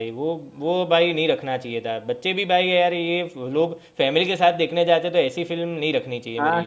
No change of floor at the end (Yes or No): No